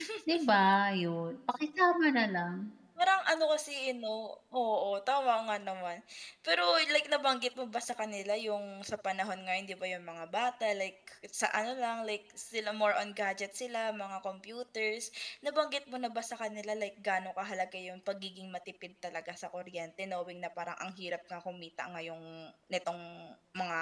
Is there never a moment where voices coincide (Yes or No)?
Yes